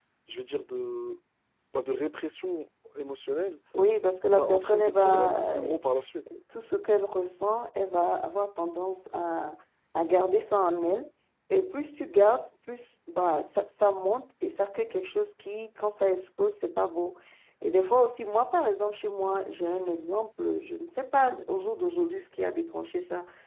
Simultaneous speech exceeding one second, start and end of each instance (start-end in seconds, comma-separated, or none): 4.2-5.5